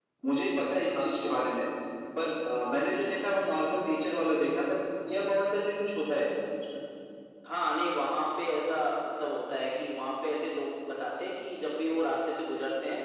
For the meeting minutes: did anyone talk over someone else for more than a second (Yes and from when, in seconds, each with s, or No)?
No